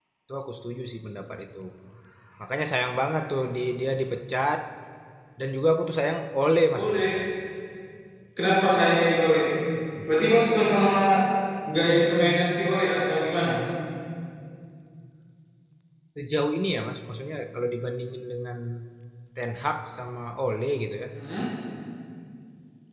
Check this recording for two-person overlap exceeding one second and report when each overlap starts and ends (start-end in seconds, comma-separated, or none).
none